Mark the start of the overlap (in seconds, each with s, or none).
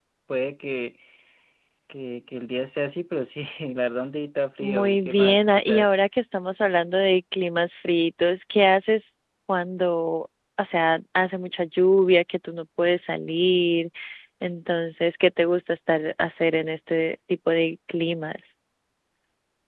4.6 s